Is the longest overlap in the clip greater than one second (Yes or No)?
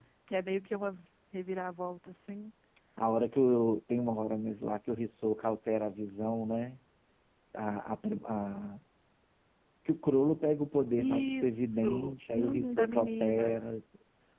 Yes